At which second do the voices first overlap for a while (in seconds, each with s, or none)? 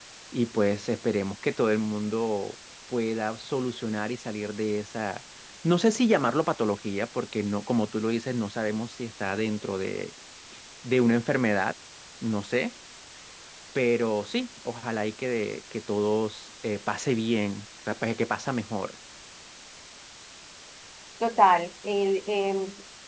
none